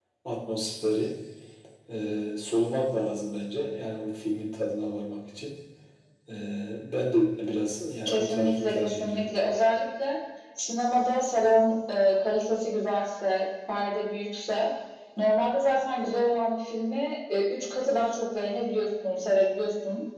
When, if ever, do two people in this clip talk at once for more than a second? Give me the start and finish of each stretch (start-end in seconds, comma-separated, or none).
8.0-9.4